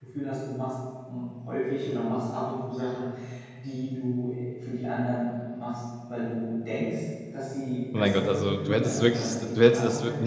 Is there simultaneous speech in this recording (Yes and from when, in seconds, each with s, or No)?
Yes, from 7.9 s